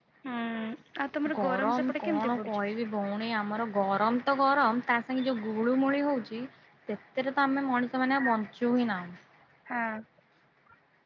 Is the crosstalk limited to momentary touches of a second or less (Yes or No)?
No